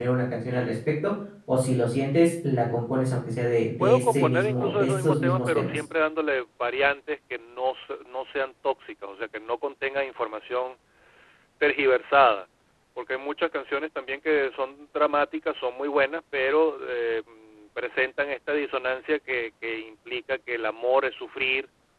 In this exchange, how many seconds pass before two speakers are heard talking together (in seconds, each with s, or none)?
3.8 s